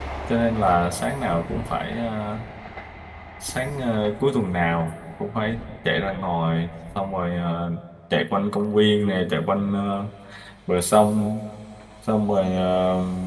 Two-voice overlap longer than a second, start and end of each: none

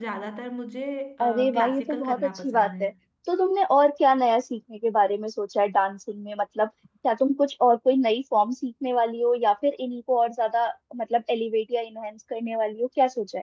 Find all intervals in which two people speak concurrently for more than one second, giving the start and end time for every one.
1.2-2.8

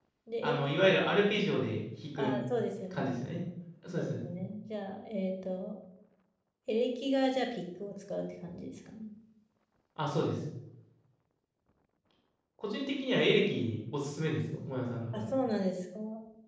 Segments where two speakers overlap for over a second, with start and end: none

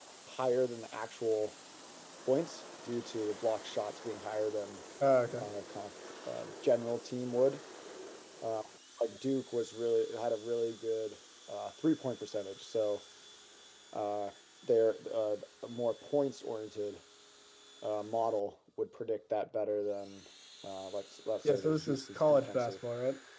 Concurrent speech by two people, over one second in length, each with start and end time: 21.4-22.8

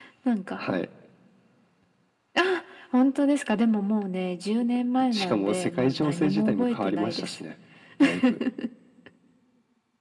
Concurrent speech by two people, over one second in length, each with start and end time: 5.1-7.4

